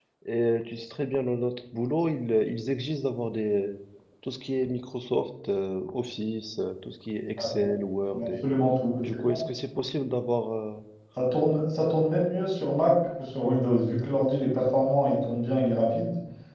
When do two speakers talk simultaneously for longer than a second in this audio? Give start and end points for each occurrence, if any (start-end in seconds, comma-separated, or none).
none